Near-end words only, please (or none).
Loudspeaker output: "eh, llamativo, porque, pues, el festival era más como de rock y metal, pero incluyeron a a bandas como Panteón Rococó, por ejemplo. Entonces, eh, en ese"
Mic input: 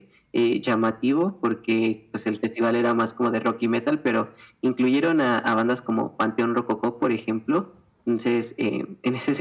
none